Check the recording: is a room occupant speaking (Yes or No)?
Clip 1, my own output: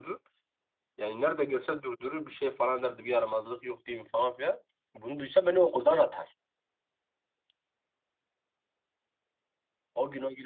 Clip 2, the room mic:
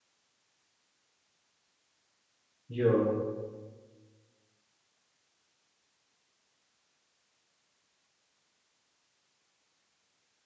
Yes